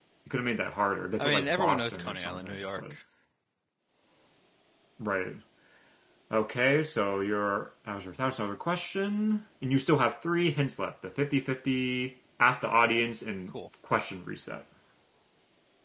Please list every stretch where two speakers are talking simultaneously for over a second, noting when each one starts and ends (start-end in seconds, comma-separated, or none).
1.2-2.9